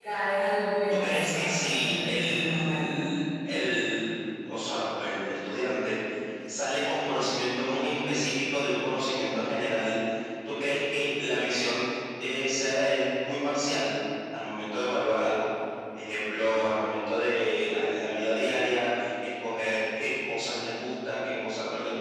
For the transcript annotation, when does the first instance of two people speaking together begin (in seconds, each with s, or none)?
0.9 s